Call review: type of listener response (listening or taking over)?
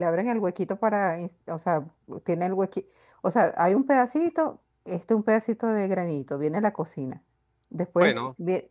listening